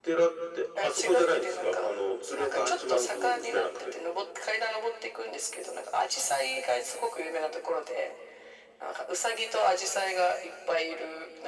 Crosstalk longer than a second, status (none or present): present